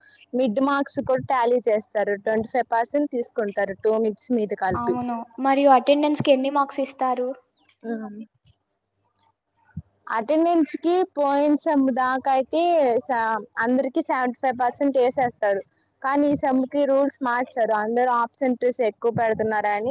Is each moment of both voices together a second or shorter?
Yes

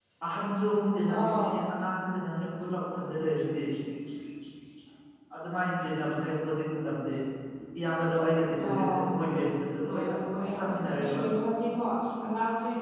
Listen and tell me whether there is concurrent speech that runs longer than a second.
Yes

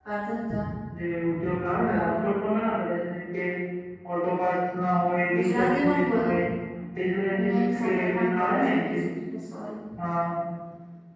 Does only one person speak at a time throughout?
No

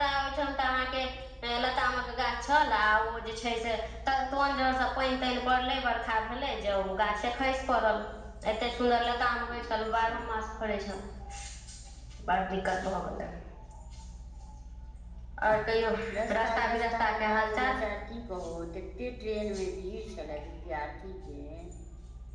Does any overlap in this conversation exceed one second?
Yes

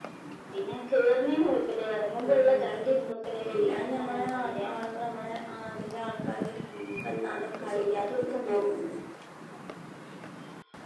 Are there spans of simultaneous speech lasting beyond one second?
Yes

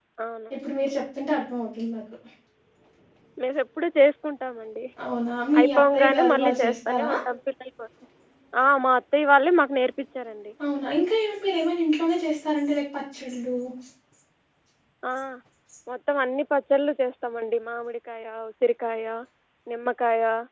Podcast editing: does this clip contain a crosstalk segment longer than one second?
Yes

